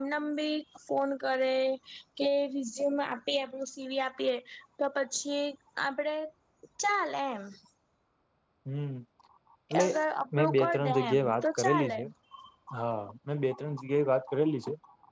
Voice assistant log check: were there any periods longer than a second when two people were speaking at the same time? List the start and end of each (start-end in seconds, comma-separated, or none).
10.4-12.0